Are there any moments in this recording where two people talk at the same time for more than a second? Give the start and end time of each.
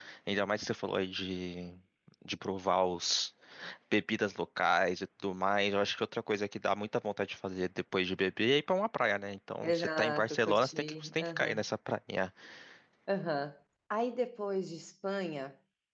9.6-11.6

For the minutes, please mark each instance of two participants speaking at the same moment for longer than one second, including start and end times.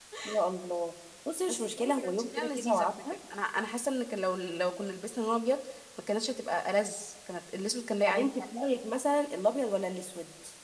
1.5-2.9

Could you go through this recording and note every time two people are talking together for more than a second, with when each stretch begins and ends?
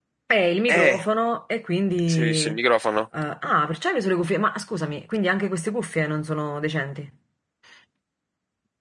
none

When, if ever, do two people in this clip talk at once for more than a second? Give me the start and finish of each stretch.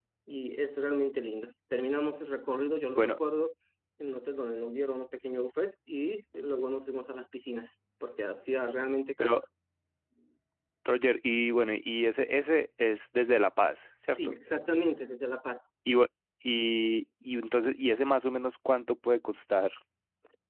none

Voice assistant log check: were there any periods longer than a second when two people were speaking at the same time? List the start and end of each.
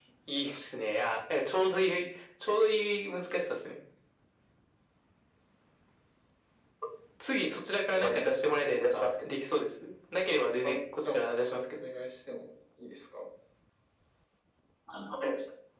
10.6-11.8

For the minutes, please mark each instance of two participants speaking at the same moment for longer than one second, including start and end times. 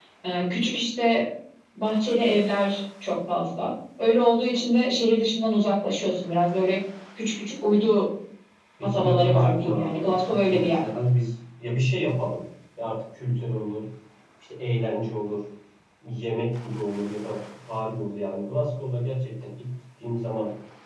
8.8-10.8

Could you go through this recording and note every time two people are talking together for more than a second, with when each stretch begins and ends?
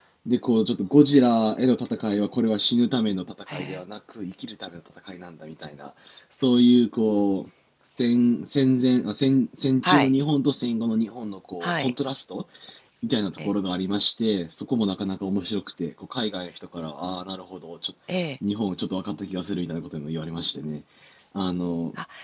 none

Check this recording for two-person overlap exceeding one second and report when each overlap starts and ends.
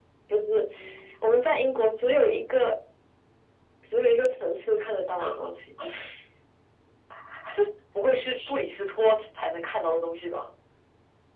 none

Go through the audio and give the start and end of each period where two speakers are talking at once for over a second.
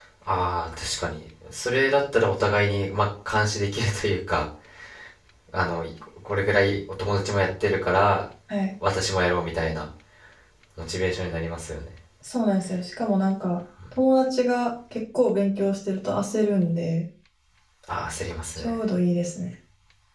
none

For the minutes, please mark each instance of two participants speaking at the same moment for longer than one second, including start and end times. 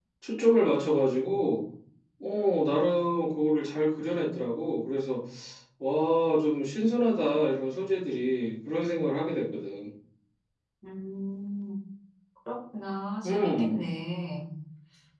none

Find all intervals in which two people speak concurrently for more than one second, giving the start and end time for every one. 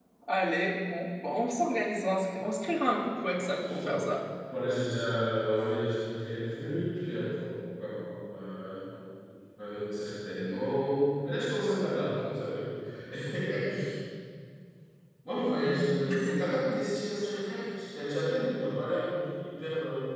2.8-4.1

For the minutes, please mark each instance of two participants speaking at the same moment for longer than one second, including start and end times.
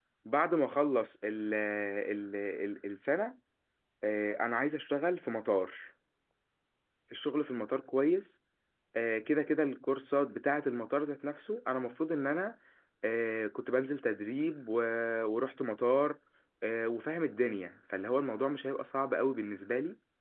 none

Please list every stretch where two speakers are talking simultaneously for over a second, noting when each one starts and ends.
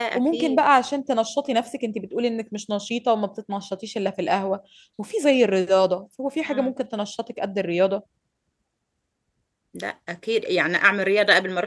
none

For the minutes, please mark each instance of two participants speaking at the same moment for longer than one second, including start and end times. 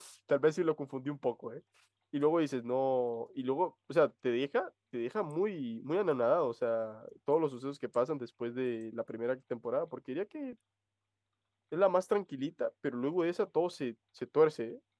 none

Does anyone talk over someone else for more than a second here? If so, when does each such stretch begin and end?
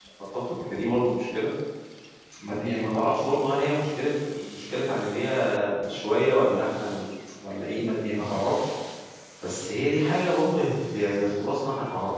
none

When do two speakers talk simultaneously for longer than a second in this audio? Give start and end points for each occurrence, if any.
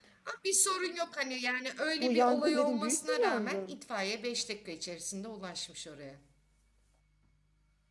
2.0-3.8

